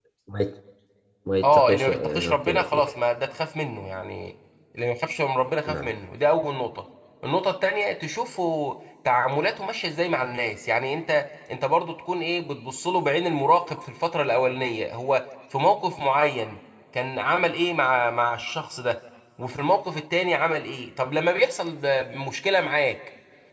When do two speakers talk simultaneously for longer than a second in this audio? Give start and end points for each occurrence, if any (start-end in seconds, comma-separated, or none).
1.4-3.0